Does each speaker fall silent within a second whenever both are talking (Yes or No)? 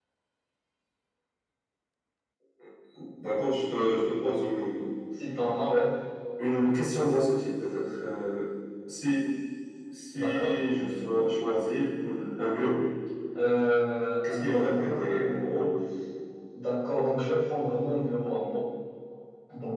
No